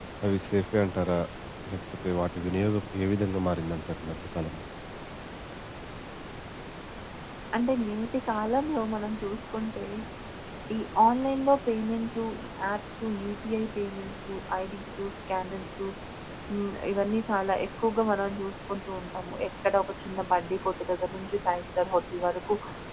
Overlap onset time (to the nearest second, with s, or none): none